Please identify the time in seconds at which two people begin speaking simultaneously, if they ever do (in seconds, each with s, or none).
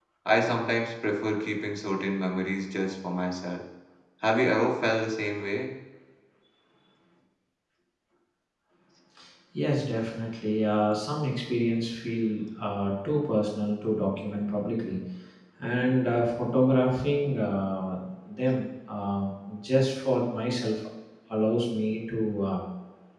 none